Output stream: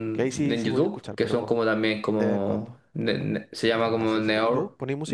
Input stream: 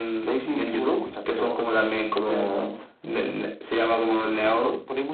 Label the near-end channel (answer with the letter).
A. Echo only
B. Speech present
A